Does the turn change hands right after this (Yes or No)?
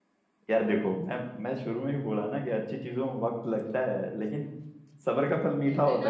Yes